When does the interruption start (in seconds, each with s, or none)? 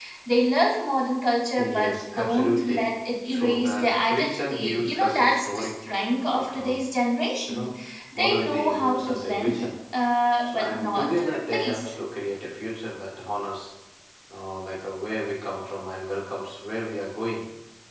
1.6 s